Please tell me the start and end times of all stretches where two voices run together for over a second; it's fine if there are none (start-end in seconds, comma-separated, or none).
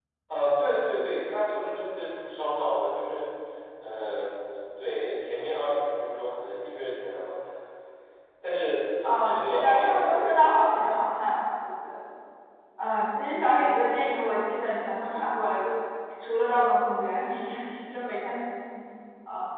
9.0-10.6